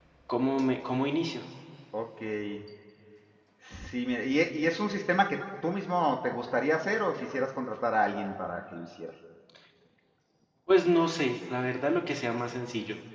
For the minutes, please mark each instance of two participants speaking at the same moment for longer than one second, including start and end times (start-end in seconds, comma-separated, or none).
none